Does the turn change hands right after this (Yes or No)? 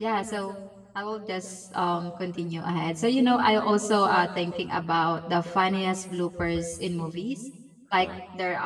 No